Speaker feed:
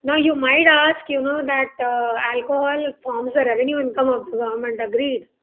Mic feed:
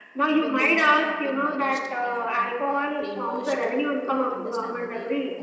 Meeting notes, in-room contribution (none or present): present